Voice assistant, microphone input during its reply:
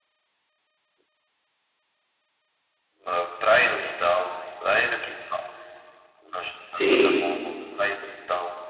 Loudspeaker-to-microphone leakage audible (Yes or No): Yes